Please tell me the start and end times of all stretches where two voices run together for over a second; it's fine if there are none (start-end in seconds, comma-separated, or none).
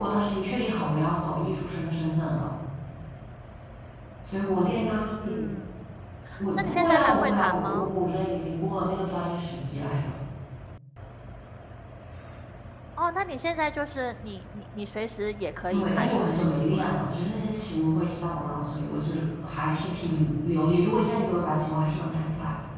6.6-7.9, 15.7-16.9